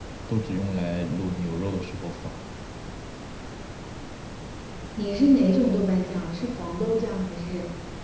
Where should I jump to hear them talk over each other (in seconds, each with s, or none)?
none